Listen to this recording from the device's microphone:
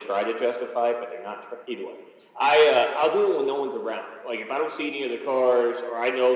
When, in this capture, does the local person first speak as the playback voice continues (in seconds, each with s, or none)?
none